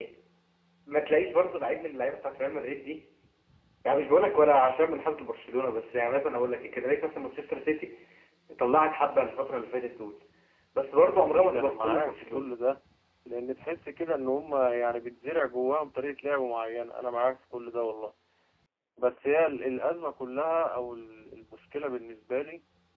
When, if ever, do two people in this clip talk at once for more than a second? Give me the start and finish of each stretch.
11.2-12.4

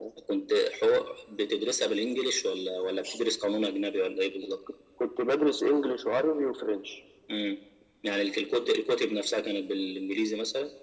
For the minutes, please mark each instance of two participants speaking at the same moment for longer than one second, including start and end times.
none

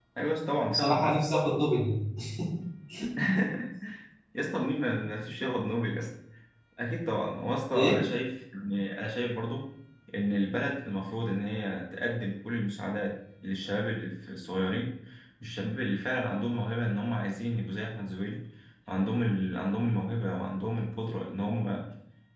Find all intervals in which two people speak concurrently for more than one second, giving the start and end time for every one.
none

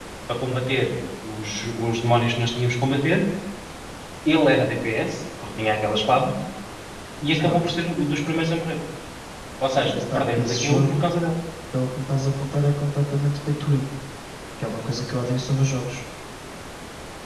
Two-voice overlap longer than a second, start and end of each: 9.8-11.1

